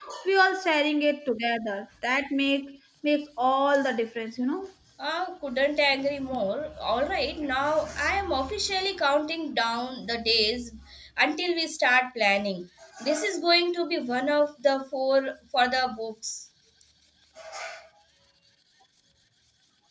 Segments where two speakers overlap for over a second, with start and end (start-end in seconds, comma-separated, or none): none